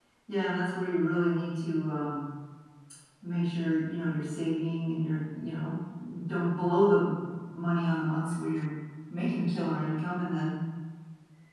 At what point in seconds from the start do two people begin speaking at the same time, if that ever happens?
none

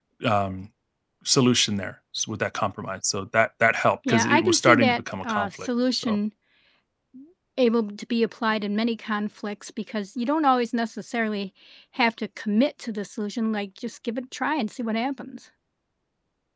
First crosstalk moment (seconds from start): 4 s

